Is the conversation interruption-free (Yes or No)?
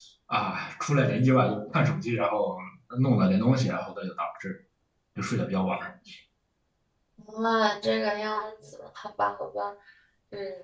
Yes